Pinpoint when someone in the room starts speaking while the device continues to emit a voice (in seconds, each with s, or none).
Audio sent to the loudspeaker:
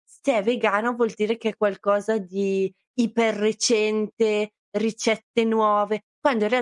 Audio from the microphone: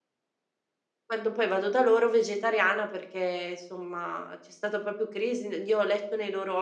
1.1 s